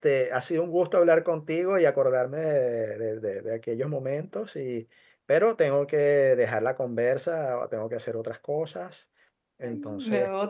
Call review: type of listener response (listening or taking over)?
taking over